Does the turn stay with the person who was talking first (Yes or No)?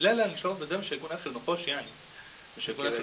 Yes